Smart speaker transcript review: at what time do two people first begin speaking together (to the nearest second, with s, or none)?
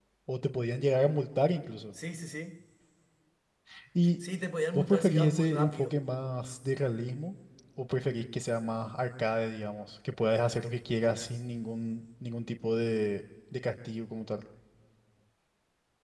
5 s